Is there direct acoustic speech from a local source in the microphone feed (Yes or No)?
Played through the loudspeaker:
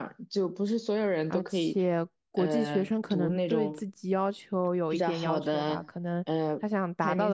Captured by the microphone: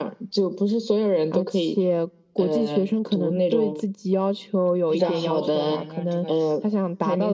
Yes